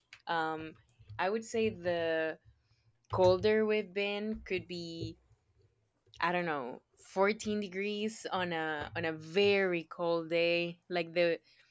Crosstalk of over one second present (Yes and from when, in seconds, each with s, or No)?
No